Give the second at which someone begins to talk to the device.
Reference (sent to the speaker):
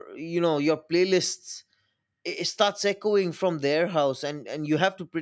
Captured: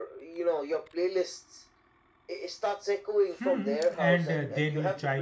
3.4 s

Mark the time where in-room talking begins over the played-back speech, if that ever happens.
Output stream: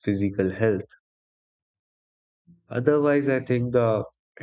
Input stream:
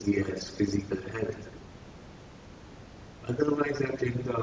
none

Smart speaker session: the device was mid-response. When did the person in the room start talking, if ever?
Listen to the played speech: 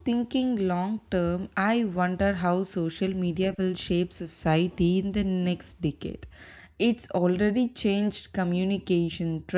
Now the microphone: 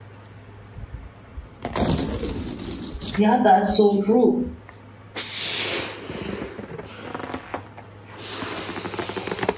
3.1 s

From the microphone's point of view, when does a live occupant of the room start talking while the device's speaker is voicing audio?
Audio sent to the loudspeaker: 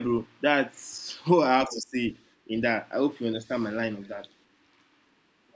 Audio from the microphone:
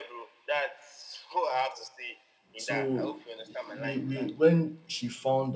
2.5 s

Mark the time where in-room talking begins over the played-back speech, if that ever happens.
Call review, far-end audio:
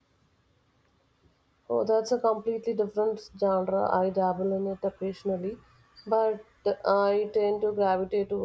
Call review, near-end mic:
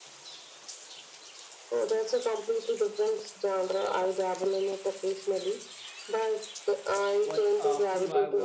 7.2 s

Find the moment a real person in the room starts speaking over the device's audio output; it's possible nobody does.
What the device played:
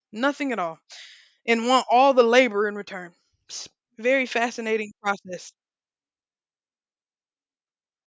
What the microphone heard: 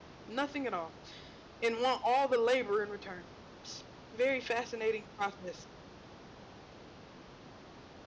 none

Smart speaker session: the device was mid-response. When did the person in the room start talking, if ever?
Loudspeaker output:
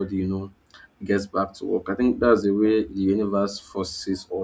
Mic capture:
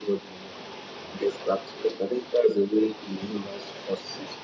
none

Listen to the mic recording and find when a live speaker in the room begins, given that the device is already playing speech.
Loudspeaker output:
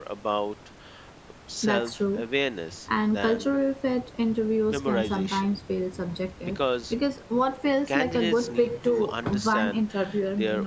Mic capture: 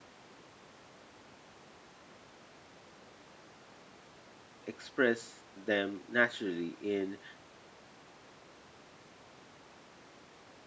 4.6 s

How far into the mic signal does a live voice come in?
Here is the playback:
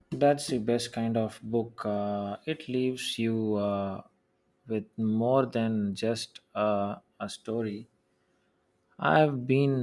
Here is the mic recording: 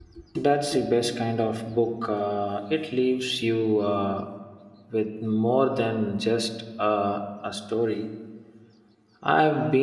none

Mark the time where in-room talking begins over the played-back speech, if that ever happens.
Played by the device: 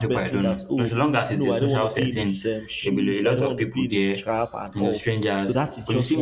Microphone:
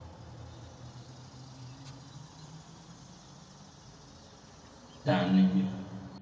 5.0 s

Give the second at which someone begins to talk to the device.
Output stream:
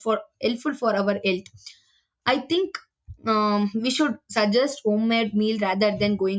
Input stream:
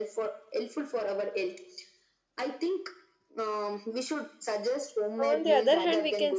5.3 s

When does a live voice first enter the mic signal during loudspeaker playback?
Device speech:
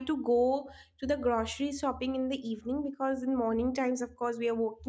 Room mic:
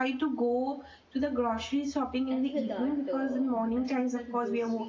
2.3 s

